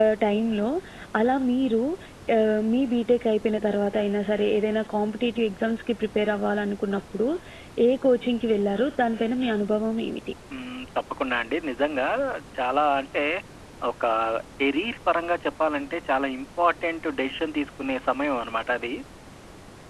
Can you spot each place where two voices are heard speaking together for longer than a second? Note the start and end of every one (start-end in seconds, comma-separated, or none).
none